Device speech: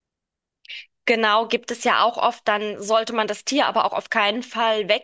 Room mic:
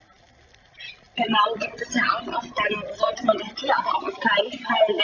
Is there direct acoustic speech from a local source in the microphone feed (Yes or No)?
No